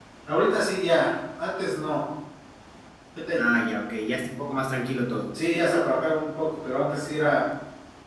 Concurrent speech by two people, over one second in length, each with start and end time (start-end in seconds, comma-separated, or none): none